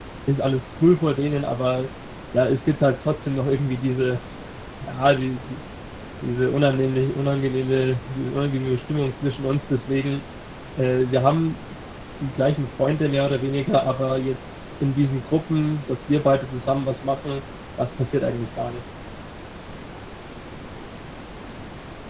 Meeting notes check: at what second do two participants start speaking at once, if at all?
none

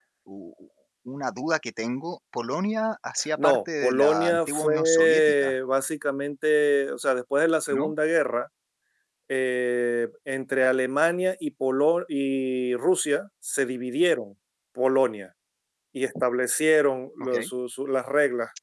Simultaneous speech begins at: 3.4 s

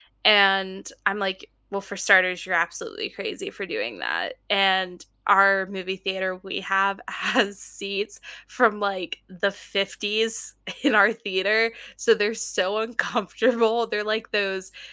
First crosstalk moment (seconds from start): none

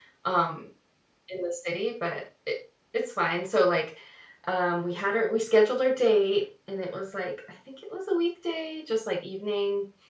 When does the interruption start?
none

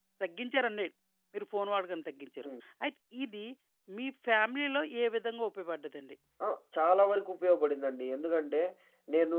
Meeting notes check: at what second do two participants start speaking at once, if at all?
none

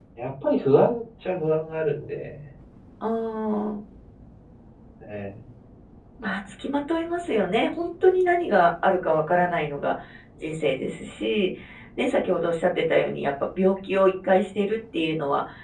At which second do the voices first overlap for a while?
none

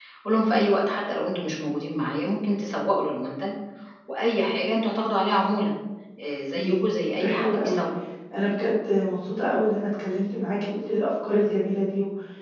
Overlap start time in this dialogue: 6.5 s

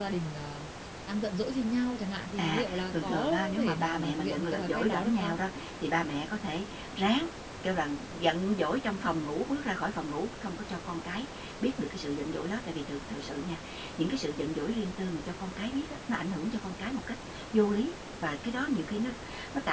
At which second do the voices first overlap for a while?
2.4 s

